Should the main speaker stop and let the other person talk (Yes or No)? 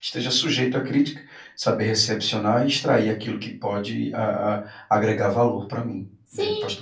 Yes